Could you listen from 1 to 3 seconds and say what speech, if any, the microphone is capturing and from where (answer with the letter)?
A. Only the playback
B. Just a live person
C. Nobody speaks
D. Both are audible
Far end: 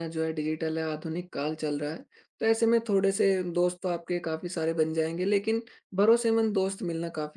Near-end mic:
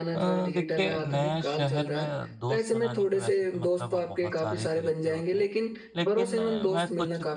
D